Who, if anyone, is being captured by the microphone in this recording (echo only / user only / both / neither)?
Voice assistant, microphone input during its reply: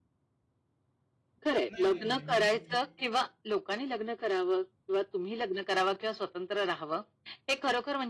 both